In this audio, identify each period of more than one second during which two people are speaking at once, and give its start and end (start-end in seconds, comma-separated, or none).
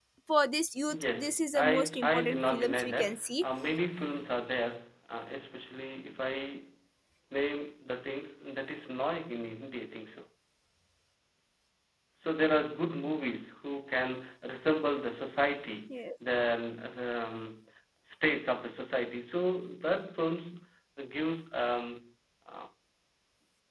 0.9-3.5